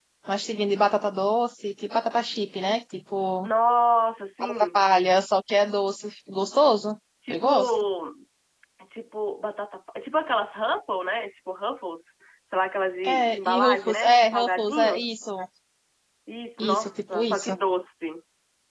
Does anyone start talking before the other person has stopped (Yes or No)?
Yes